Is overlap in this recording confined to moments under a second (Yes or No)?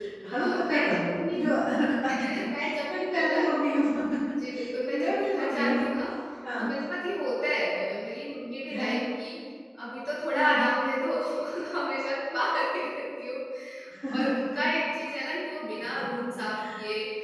No